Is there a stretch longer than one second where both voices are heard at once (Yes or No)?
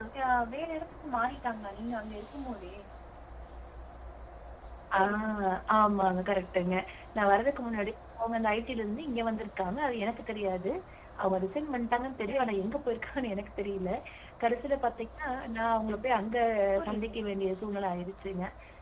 No